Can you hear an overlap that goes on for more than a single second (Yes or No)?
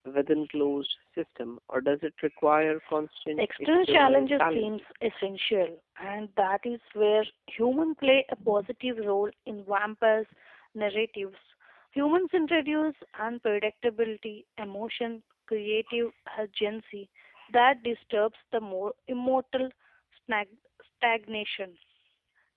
Yes